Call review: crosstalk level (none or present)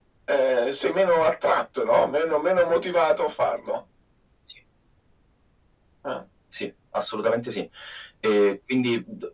none